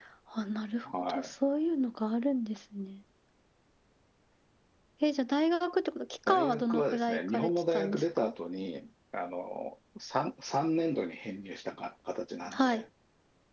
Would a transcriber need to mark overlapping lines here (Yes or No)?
Yes